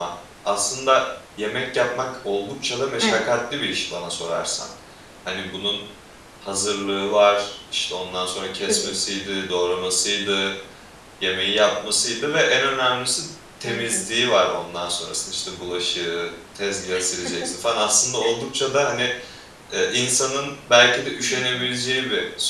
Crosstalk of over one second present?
No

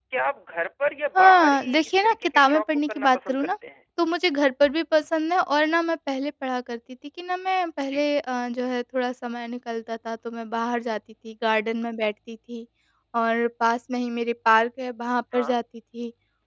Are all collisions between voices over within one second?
No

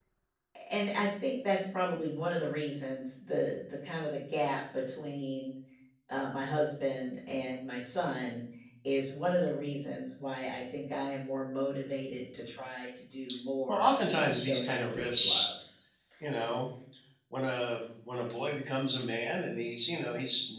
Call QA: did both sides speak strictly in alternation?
No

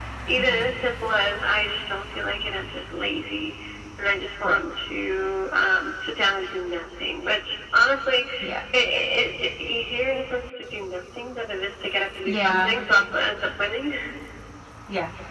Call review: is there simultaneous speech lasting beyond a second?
No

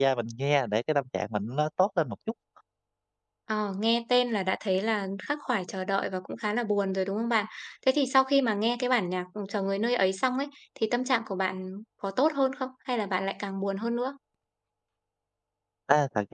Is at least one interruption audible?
No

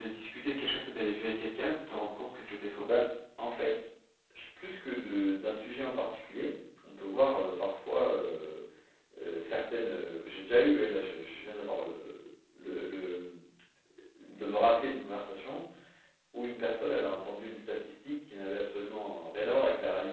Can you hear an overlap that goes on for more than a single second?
No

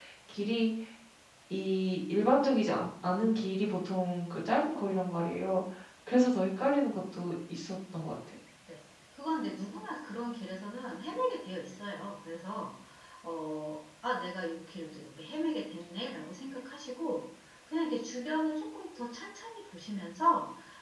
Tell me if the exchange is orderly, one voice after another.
Yes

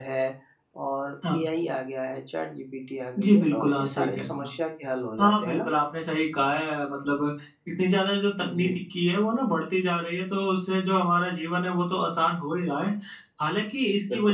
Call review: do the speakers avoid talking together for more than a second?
No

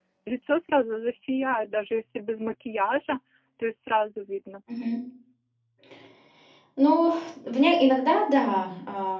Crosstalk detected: No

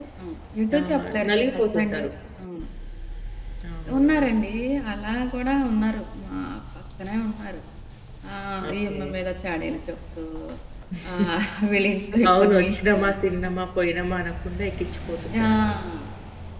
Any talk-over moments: Yes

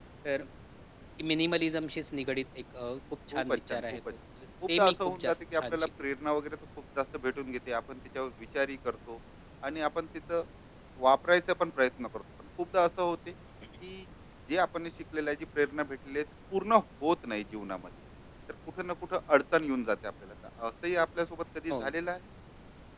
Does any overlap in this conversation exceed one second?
Yes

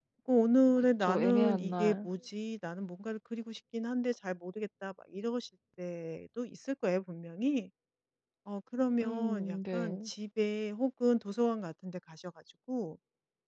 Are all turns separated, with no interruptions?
No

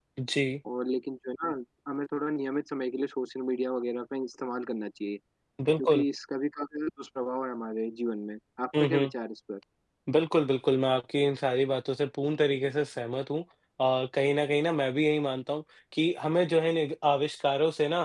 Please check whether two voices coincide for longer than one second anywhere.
No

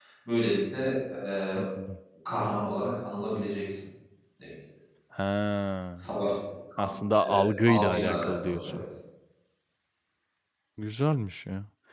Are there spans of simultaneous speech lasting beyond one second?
Yes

